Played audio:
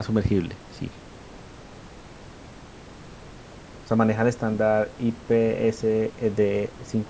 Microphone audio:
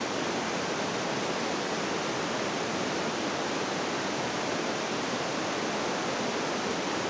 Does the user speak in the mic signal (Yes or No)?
No